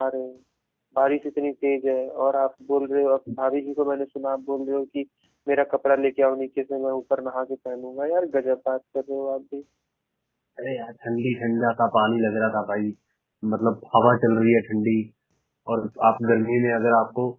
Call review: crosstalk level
none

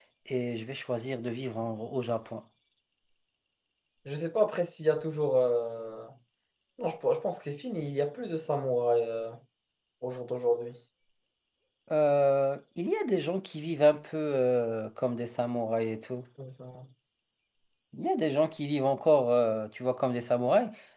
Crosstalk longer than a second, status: none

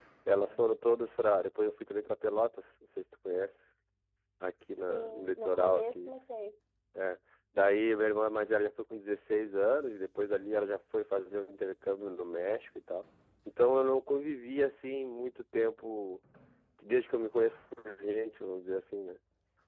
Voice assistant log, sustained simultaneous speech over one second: present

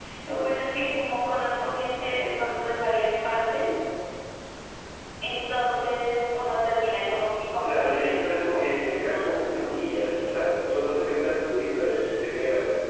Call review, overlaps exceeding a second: present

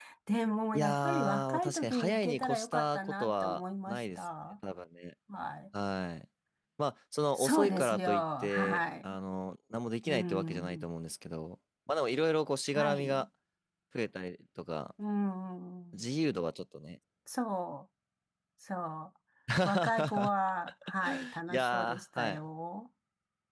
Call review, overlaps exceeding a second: present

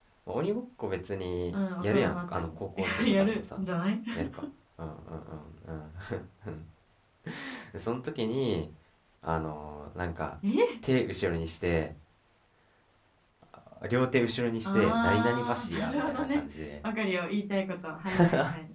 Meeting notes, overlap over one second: present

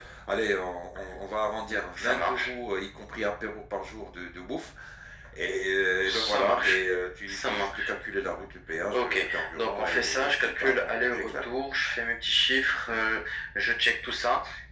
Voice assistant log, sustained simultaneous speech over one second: present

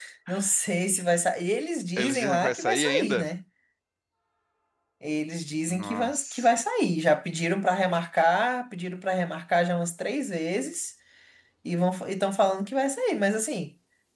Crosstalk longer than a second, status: present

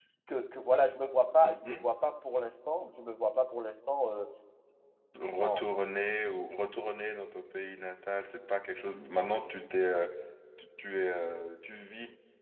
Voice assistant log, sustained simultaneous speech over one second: none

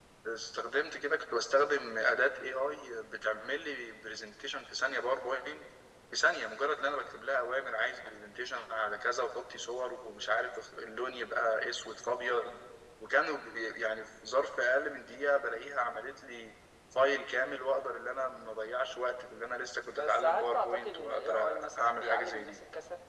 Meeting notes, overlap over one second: present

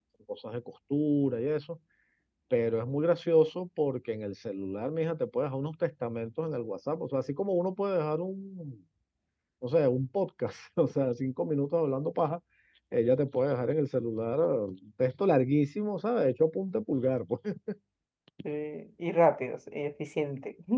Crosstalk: none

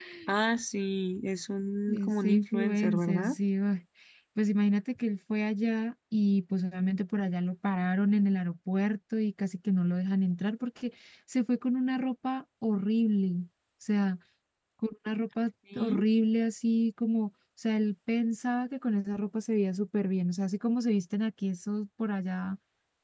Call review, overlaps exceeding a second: present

